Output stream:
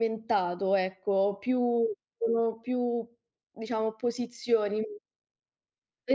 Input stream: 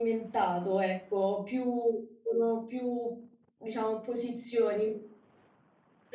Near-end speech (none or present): none